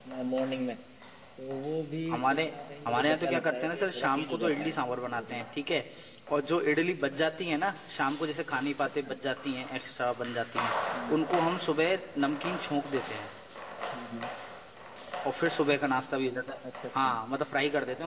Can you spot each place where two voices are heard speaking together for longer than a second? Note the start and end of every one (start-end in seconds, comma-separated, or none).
2.9-4.7